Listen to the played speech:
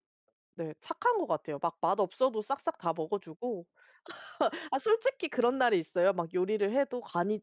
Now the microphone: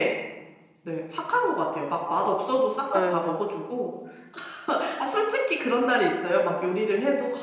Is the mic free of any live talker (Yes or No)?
No